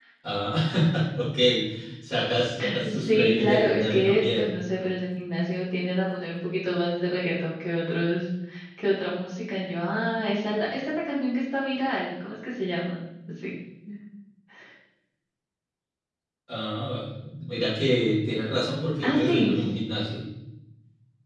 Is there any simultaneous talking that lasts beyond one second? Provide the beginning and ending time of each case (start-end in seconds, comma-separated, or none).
2.8-4.5